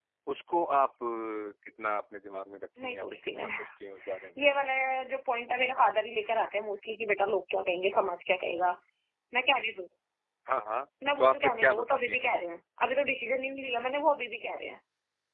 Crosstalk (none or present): present